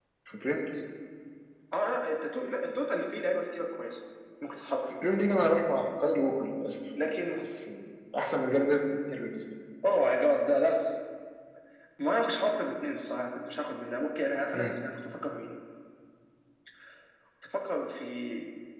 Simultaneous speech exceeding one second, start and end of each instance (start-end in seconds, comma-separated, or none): none